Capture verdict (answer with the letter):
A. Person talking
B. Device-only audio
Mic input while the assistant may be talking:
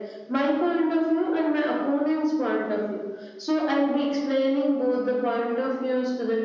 B